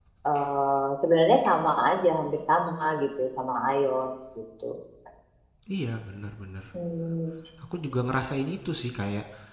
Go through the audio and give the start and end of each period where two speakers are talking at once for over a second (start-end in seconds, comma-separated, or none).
none